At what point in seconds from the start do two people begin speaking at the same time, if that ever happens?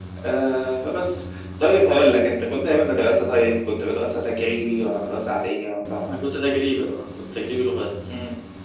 none

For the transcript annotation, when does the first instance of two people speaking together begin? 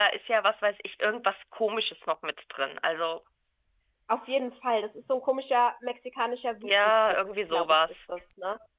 6.6 s

